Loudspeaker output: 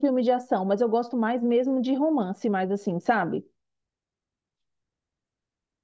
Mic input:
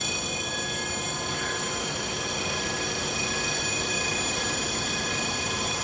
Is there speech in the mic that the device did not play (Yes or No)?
No